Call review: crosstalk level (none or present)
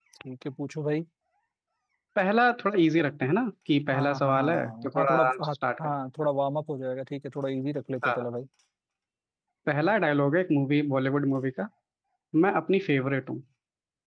present